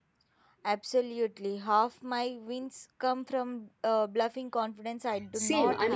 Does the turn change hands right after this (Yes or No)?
Yes